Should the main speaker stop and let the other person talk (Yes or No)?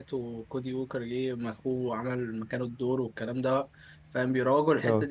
No